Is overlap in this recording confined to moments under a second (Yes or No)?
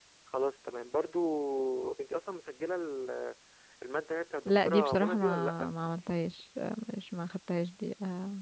No